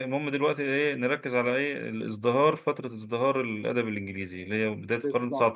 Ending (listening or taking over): taking over